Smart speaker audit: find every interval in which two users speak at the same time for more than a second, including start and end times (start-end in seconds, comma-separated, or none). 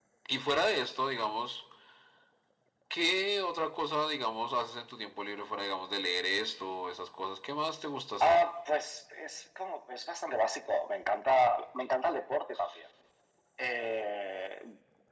none